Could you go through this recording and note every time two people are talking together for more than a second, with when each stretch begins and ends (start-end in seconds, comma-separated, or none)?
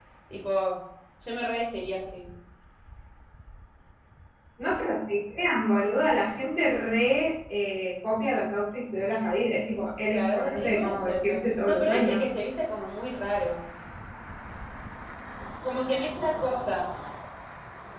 10.1-12.2